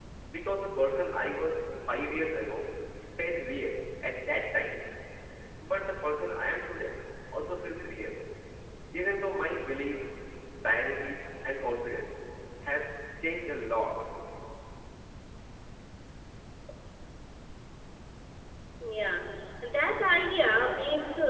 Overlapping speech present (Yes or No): No